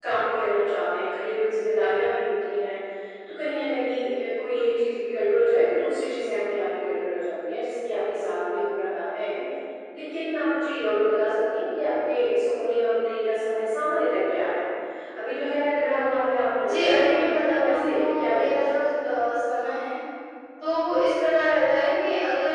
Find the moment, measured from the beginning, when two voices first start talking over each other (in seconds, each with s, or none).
16.6 s